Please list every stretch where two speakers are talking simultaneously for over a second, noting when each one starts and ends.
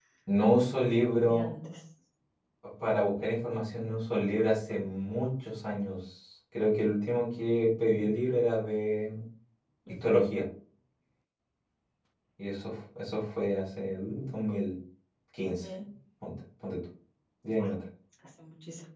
none

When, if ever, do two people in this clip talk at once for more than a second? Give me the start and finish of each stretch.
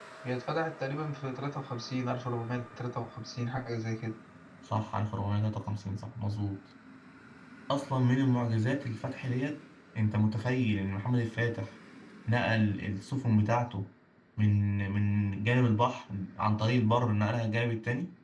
none

